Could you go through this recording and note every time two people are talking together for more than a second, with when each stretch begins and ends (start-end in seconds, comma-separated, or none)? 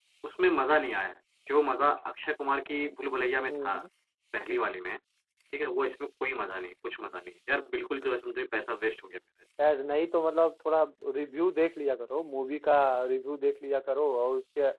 none